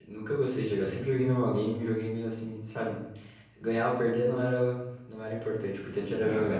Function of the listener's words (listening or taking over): taking over